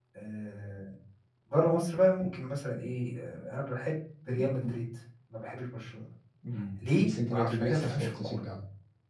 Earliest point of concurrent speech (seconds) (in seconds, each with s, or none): 7.0 s